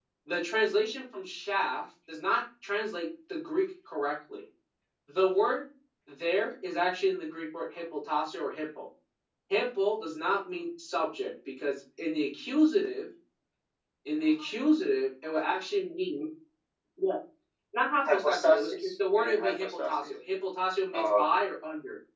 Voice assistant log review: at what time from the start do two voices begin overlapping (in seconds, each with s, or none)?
18.0 s